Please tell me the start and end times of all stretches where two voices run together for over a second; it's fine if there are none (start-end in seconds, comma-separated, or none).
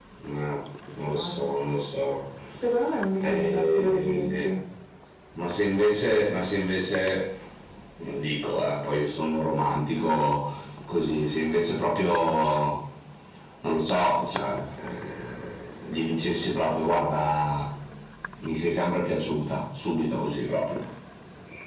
3.2-4.5